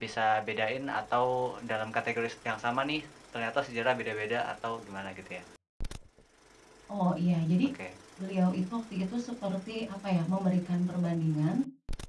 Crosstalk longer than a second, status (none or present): none